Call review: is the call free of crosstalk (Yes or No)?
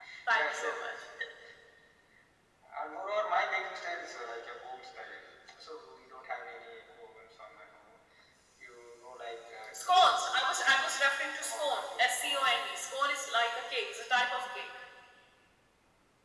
No